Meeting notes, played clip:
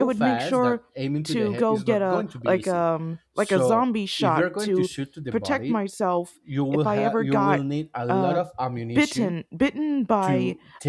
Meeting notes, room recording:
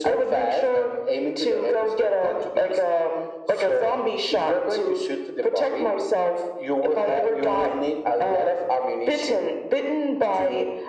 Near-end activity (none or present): none